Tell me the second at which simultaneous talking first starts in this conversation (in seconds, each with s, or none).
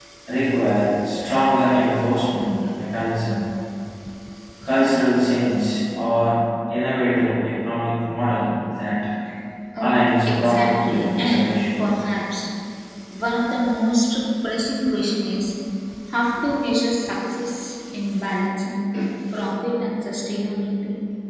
9.8 s